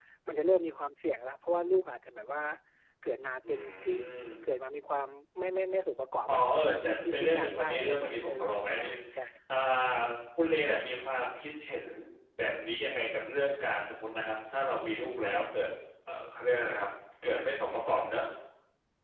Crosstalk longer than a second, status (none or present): present